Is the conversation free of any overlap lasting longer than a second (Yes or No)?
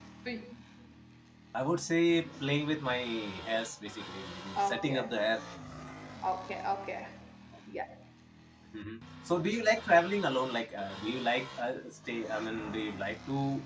Yes